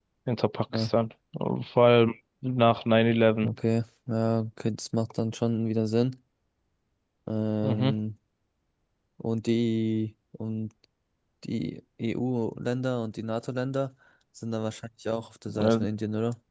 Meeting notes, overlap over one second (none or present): none